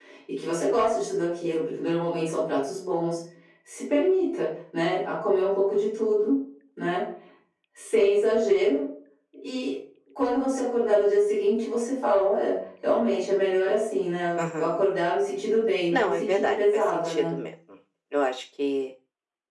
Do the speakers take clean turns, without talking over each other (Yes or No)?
No